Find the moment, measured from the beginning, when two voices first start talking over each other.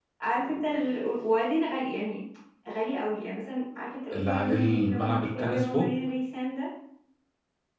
4 s

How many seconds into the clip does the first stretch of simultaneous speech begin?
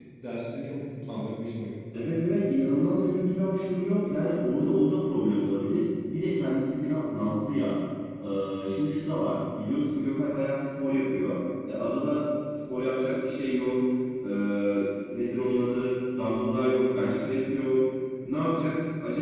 none

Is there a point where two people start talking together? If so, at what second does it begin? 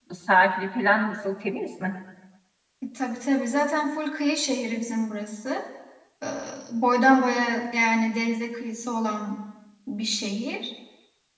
none

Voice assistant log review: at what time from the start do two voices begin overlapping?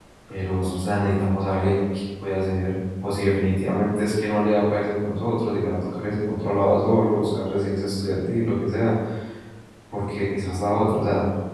none

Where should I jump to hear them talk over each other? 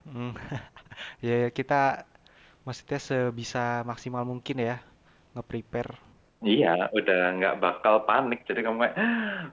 none

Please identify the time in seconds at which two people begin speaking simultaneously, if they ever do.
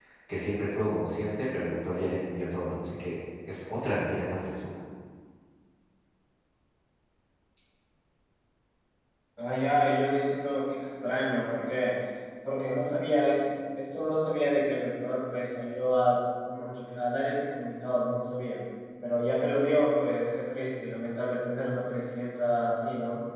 none

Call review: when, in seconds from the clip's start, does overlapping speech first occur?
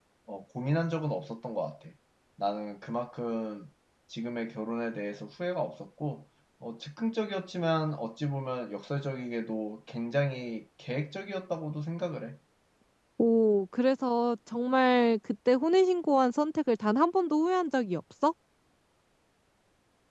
none

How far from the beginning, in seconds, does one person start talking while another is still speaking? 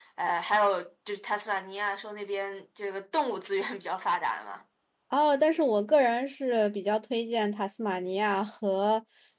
none

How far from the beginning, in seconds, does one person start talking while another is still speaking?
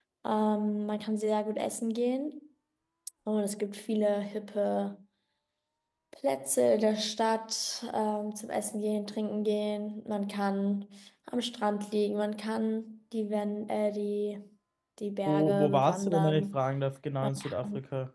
15 s

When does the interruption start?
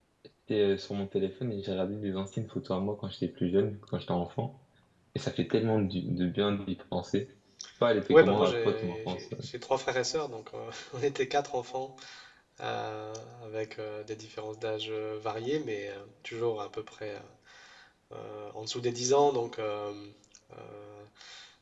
8 s

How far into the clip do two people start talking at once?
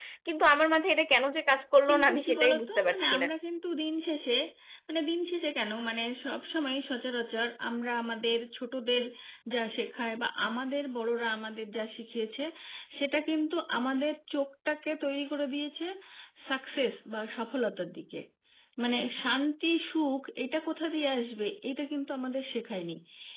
2 s

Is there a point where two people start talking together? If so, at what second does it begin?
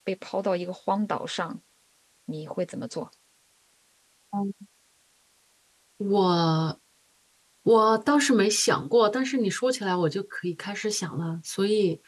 none

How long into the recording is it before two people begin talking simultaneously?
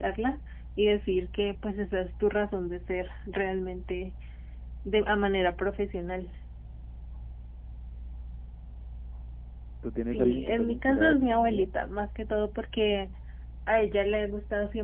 10 s

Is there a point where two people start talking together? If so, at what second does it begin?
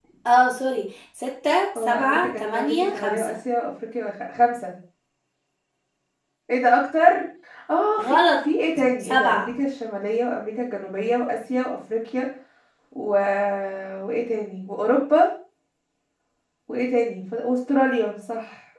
2 s

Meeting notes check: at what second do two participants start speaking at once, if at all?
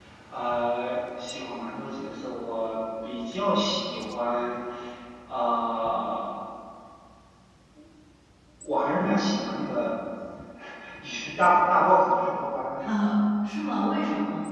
none

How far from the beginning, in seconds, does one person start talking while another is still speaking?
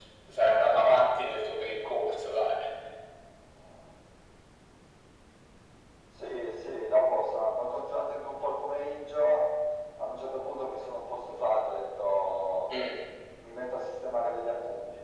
none

